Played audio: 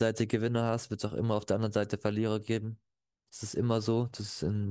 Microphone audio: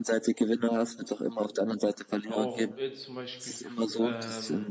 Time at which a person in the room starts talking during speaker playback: 2.2 s

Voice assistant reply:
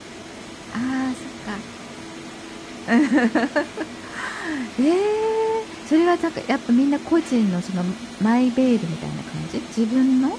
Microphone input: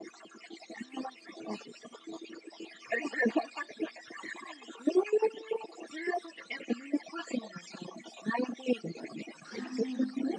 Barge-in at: 9.4 s

